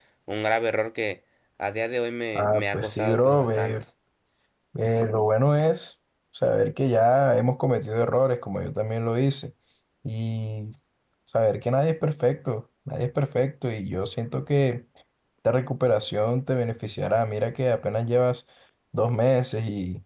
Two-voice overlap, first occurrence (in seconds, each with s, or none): 2.4 s